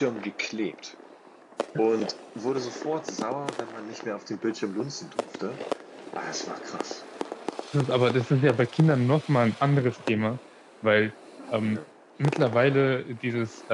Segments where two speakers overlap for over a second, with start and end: none

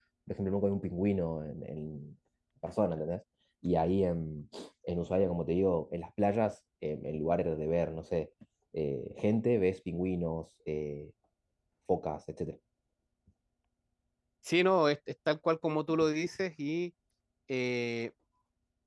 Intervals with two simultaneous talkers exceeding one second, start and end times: none

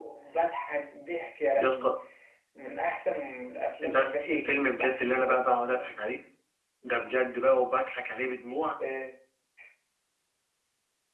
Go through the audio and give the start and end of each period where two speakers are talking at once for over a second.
3.8-5.9

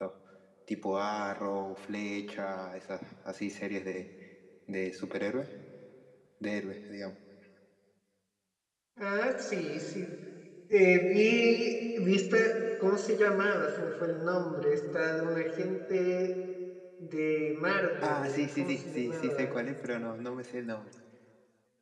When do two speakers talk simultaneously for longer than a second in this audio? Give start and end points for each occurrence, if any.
18.0-19.6

